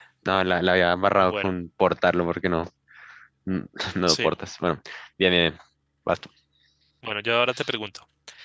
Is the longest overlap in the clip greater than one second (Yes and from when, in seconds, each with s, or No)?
No